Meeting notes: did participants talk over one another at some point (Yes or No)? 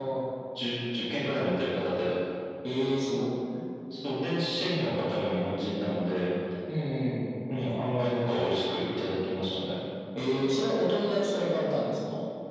No